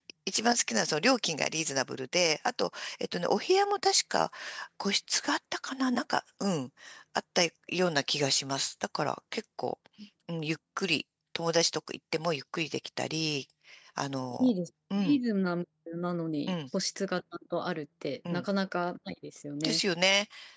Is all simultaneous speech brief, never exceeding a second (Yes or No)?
Yes